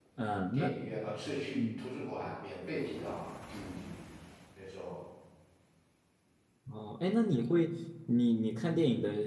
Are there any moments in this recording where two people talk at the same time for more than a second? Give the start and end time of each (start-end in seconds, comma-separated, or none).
none